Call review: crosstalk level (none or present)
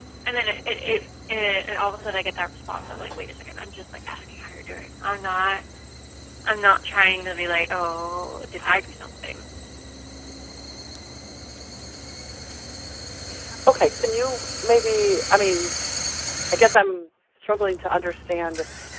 none